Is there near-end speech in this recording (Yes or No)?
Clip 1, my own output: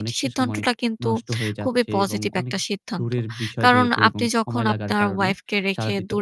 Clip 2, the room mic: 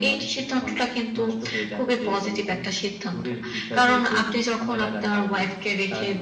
No